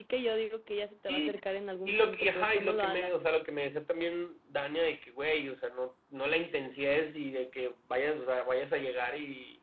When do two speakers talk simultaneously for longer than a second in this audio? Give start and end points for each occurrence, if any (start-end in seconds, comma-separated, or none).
1.9-3.1